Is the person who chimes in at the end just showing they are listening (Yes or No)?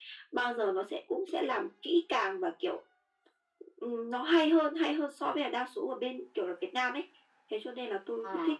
Yes